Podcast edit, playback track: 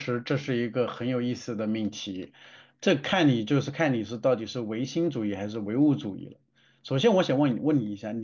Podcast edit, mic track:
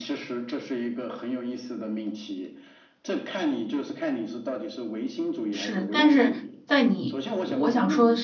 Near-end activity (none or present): present